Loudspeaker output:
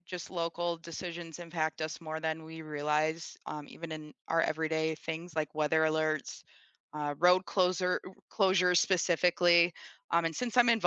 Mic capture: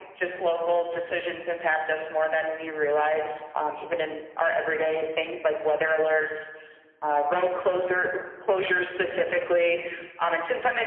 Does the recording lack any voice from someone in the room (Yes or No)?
Yes